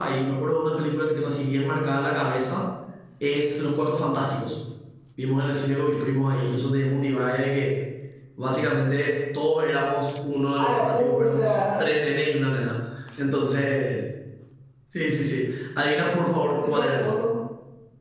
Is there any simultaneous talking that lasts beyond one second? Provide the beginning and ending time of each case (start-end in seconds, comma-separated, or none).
10.6-11.9